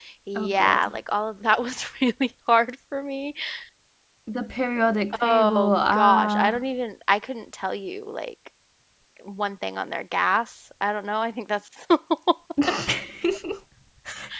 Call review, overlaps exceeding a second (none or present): present